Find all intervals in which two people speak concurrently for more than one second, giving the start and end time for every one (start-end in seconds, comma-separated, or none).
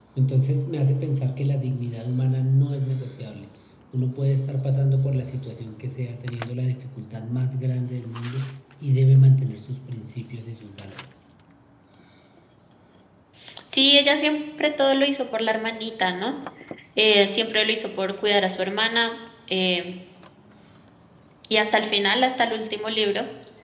none